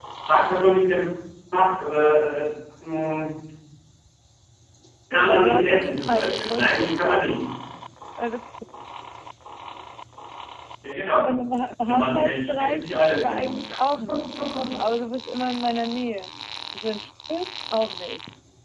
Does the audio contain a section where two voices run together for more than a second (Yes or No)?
Yes